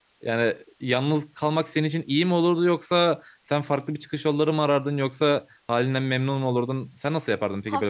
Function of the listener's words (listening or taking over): taking over